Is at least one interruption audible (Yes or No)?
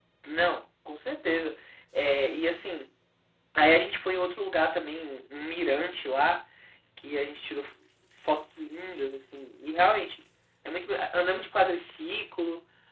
No